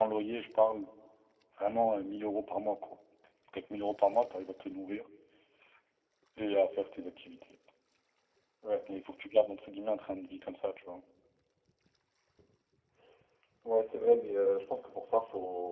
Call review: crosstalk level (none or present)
none